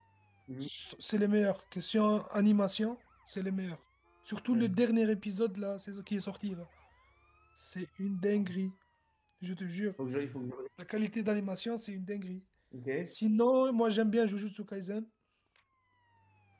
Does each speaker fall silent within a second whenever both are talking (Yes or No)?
Yes